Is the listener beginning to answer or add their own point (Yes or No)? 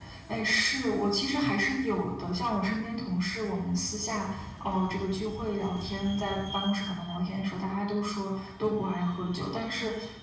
No